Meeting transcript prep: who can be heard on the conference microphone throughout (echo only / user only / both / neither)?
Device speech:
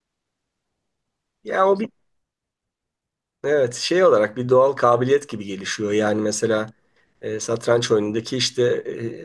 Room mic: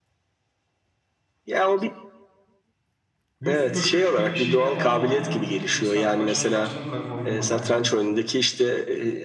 both